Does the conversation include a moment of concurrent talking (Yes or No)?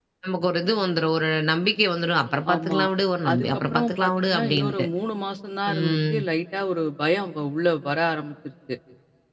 Yes